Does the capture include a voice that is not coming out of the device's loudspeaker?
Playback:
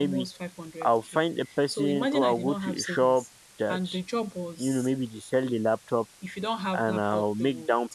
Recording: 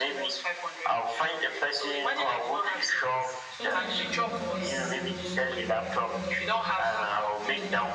Yes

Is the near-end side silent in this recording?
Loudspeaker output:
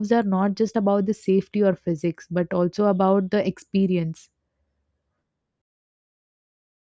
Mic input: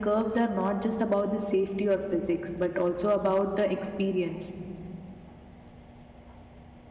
Yes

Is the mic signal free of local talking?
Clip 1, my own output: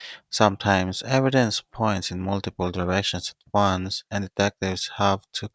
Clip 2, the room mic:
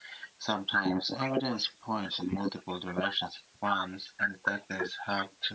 Yes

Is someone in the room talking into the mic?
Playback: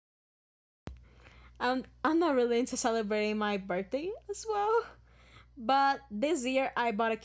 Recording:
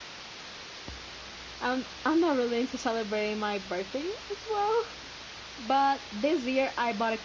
No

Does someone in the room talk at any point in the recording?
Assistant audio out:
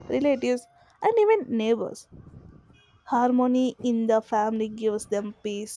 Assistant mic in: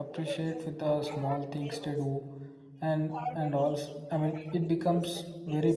Yes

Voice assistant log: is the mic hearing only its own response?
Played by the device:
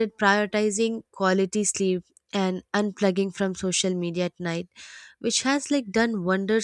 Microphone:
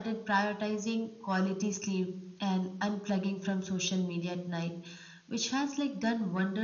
Yes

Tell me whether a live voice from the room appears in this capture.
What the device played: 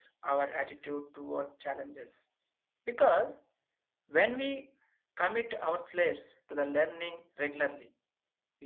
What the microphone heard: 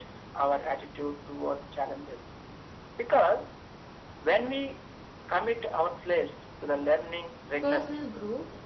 Yes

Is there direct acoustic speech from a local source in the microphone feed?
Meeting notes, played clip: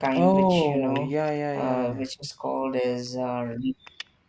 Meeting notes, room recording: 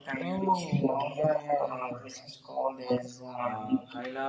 Yes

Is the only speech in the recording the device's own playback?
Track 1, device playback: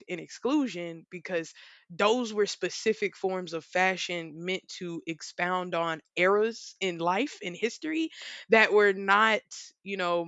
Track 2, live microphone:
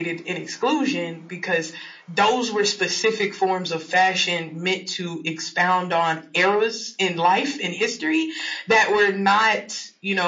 Yes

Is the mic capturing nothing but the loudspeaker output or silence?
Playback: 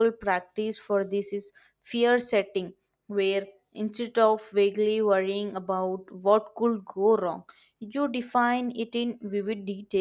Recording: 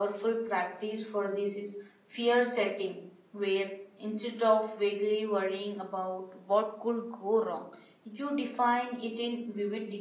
Yes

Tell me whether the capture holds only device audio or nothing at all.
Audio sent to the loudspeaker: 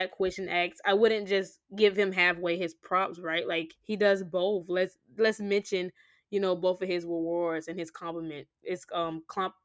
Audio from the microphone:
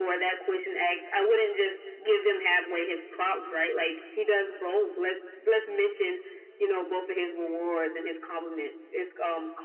Yes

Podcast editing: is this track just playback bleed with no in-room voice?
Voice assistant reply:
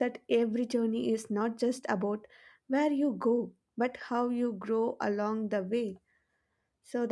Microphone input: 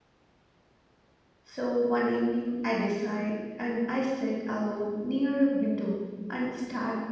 No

